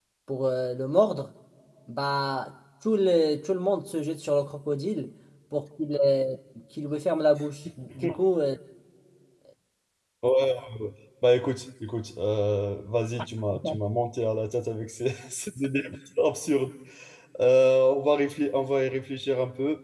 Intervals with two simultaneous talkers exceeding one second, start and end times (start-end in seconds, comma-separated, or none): none